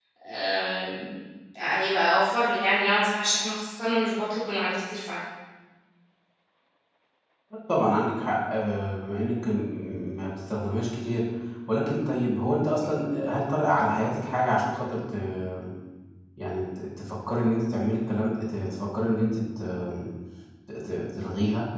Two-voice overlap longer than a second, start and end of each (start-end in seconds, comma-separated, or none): none